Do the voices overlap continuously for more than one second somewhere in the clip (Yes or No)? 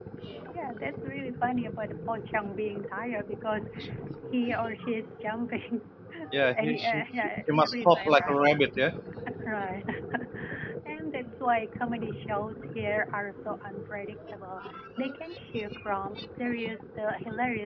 Yes